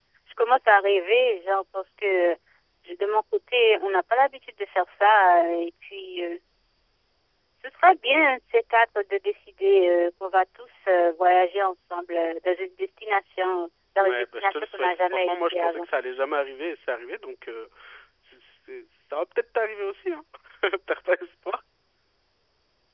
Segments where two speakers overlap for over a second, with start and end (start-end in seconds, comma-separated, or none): 14.0-15.9